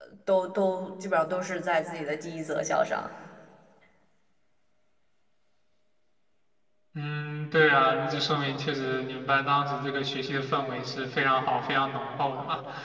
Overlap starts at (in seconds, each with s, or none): none